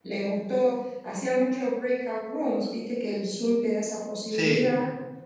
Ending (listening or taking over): listening